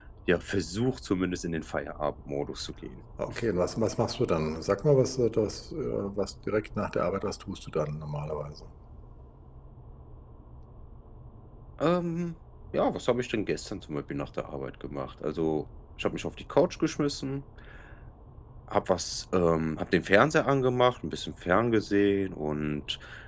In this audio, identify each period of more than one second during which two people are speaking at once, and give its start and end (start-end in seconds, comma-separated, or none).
none